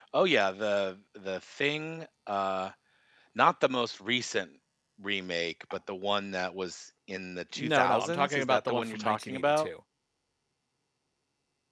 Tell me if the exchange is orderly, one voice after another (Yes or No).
No